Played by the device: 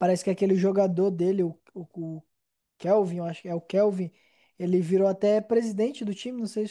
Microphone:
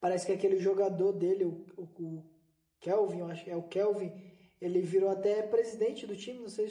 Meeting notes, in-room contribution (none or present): none